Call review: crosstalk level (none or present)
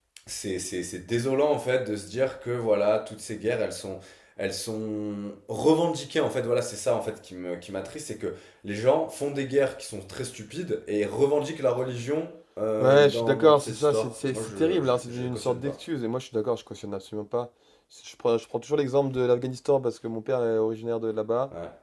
present